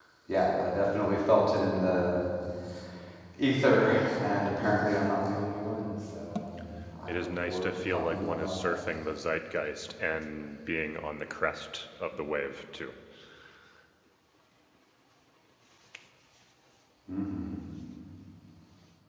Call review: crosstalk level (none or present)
present